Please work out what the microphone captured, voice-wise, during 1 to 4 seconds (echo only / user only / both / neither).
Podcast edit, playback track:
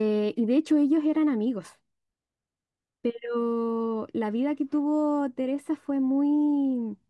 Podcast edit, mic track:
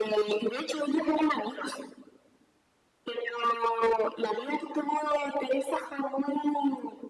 echo only